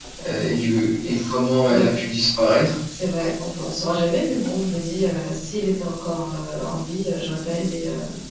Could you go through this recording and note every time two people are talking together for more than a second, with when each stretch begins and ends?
none

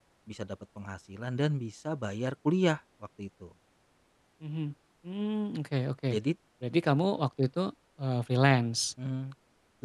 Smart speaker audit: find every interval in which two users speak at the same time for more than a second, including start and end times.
none

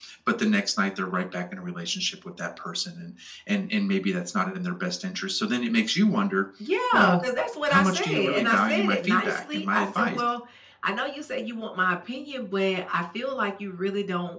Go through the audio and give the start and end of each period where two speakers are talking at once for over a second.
7.7-10.2

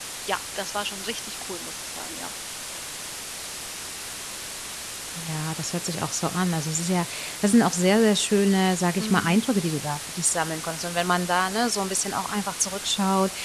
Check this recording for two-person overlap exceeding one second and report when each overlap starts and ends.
none

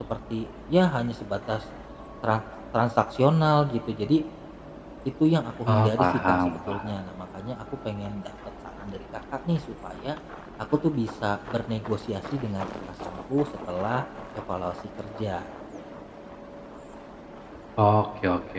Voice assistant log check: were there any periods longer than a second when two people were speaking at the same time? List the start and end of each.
5.7-6.9

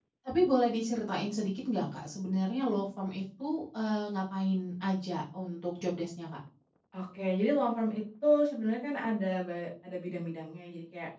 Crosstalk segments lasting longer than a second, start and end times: none

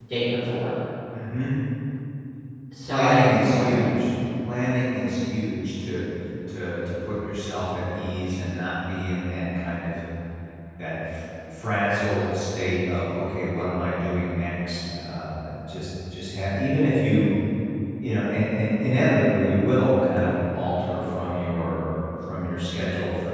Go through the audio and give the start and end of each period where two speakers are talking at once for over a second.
2.8-4.1

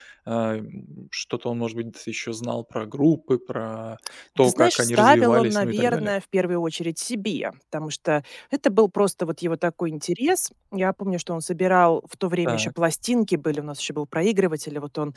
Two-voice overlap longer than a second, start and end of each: 4.4-6.1

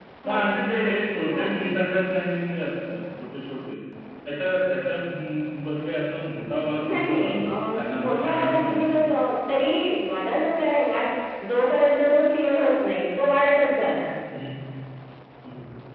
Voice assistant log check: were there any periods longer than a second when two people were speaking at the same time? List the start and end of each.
6.9-8.8

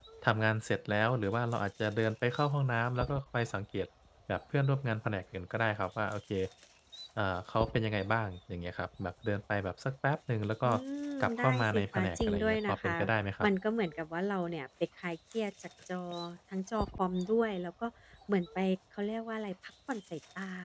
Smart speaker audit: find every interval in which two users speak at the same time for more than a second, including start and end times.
11.2-12.9

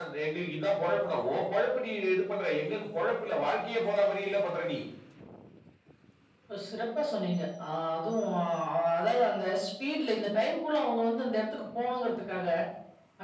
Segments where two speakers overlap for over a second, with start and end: none

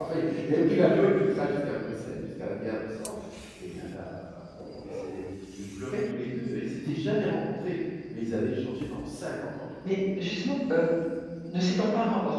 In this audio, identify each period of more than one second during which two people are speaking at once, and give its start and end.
none

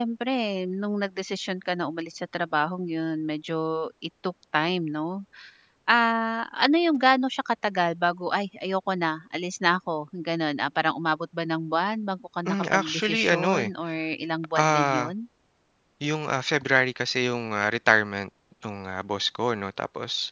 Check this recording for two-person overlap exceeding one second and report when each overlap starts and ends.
12.5-13.7

